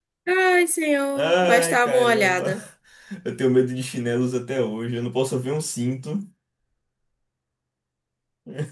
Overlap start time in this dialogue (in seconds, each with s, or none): 1.2 s